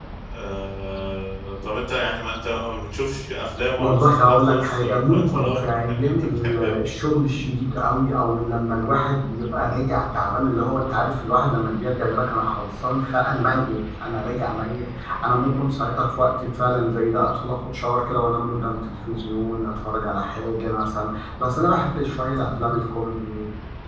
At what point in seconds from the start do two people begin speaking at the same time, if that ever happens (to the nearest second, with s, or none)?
4 s